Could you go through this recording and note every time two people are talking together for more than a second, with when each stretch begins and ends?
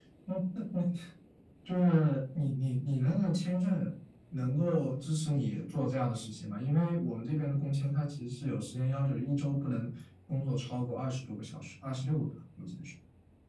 none

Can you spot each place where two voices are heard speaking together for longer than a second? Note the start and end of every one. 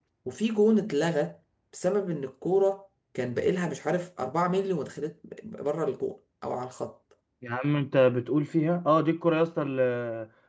none

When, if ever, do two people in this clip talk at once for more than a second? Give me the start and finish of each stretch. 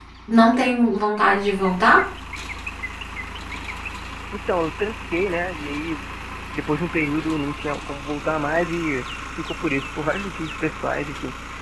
none

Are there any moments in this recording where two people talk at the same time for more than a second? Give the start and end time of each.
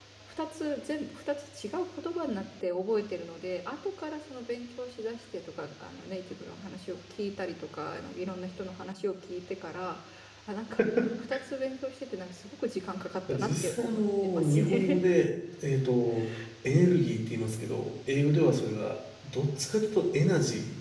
13.3-15.0

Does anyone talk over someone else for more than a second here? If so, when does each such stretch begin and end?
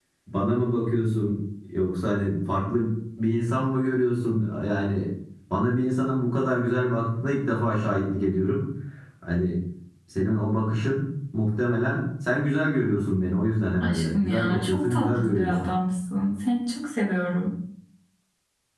13.8-15.6

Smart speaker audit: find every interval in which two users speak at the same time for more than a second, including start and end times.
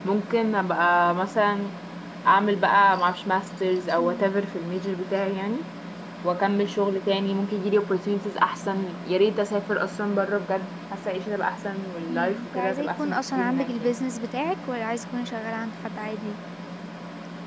12.1-14.0

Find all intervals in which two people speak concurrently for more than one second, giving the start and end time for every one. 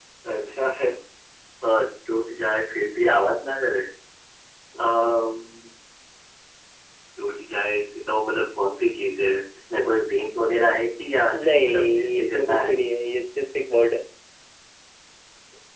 11.4-12.7

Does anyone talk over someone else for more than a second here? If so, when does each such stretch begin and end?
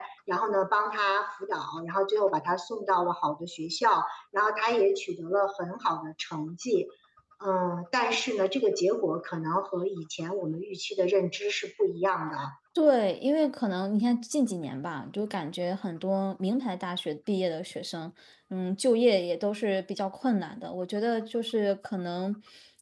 none

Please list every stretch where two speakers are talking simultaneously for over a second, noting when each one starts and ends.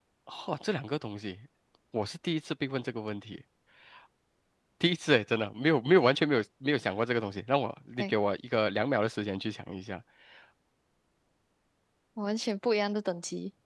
none

